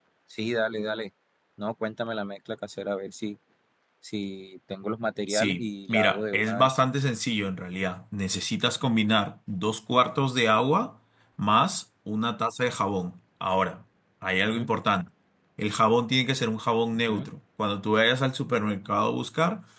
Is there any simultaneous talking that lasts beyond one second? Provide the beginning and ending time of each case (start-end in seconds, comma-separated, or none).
5.3-6.8